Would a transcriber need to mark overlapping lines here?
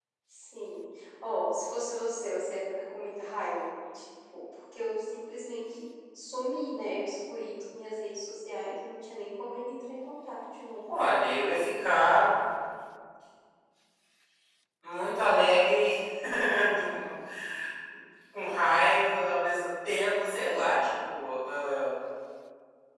No

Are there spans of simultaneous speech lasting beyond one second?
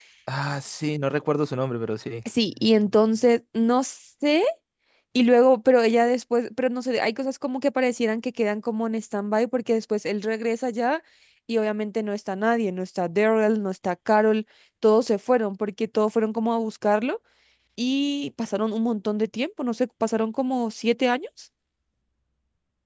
No

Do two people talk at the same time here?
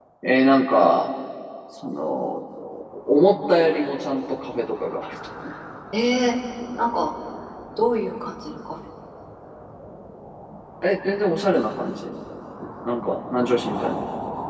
No

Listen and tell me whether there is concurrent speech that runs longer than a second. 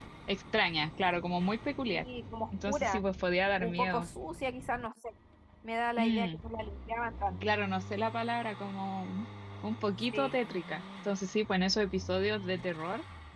No

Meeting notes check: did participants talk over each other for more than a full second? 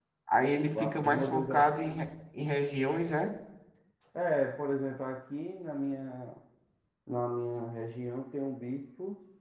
Yes, from 0.7 s

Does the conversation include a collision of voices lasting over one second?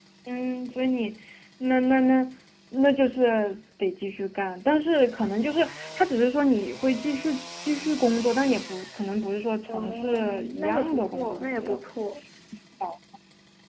Yes, from 9.7 s

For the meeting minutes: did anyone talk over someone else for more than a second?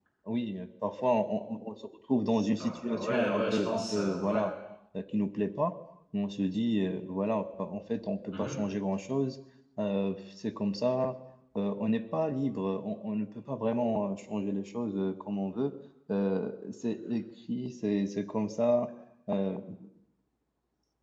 Yes, from 2.6 s

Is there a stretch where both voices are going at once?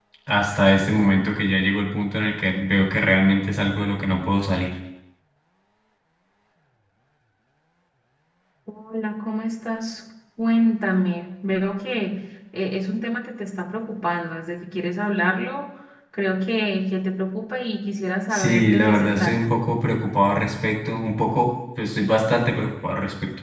Yes, from 18.3 s

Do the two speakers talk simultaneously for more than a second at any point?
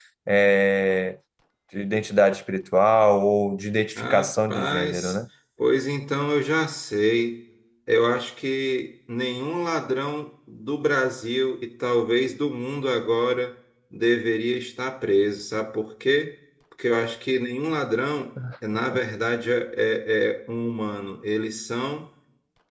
Yes, from 4.0 s

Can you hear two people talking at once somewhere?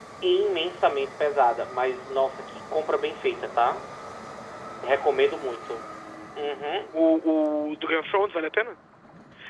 No

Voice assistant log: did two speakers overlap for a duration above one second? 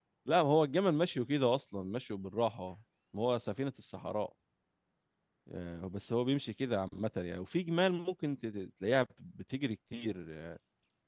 No

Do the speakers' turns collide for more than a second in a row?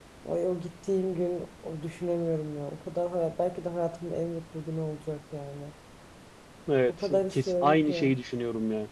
Yes, from 6.9 s

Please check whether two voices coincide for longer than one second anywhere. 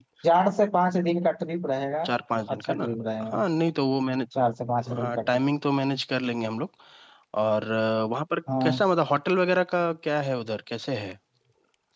No

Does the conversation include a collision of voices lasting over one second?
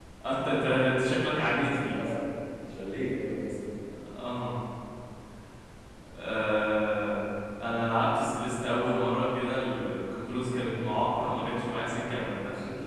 No

